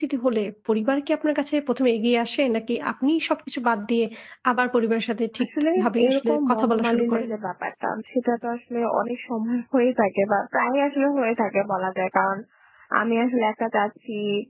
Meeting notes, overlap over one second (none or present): present